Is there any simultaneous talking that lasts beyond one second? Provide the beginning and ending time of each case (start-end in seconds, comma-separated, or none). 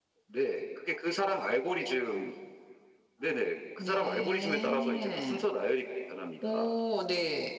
3.8-5.5